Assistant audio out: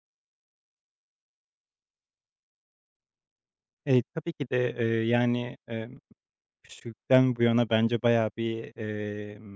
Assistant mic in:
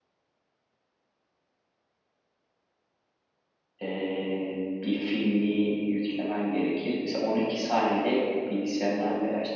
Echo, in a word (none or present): none